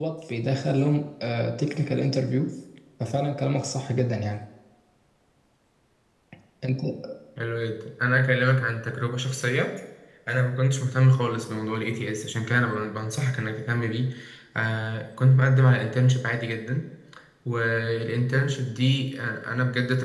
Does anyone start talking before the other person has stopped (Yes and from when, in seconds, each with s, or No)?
No